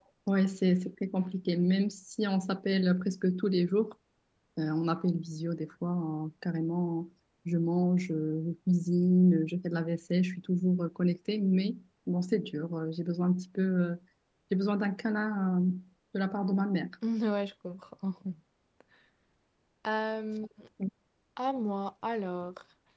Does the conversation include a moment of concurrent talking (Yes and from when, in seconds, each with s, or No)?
No